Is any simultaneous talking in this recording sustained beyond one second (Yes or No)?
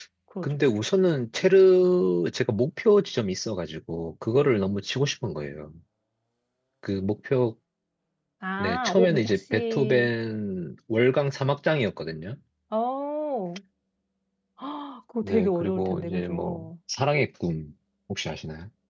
Yes